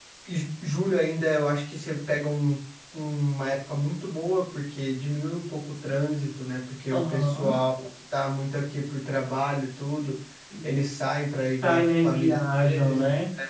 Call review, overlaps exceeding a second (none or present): present